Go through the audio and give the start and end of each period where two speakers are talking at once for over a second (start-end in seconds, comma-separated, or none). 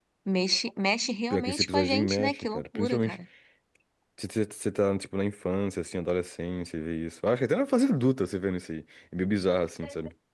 1.3-3.2